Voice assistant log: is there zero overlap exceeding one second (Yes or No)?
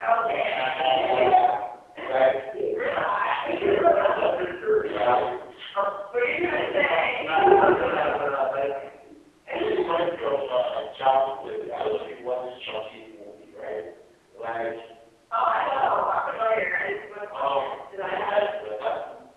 No